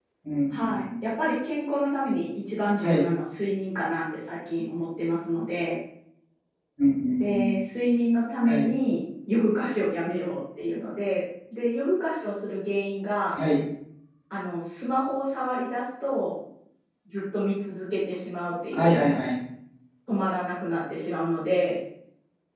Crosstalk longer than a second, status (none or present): none